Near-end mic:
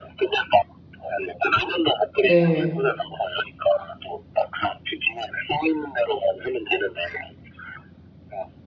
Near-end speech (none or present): present